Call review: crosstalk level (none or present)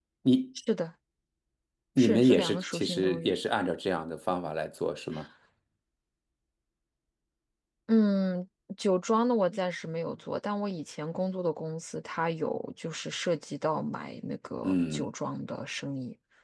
present